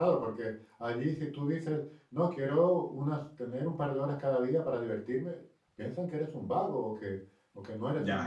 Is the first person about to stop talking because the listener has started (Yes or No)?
No